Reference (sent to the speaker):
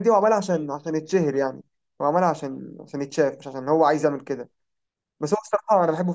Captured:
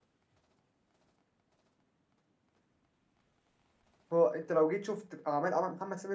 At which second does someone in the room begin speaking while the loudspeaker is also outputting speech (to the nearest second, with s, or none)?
4 s